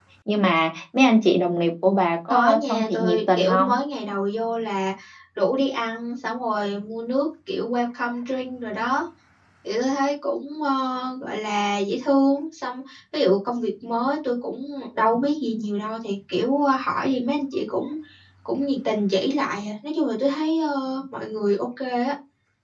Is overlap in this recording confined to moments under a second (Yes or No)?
No